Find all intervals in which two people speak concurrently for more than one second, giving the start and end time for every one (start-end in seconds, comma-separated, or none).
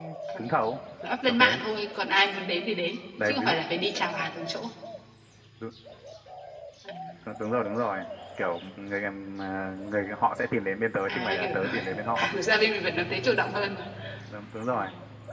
11.1-12.3